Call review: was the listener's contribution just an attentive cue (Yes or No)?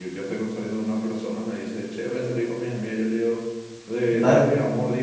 Yes